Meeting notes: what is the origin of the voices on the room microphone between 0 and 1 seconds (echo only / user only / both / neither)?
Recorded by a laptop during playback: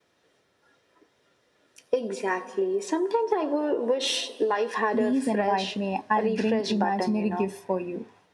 neither